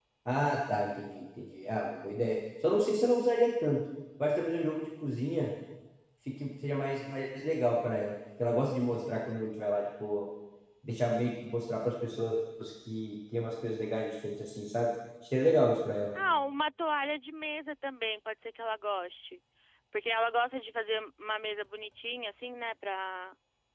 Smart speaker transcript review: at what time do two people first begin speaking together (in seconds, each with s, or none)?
none